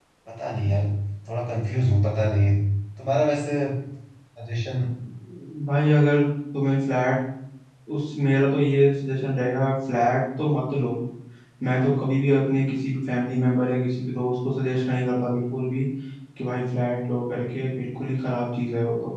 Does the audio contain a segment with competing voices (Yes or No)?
No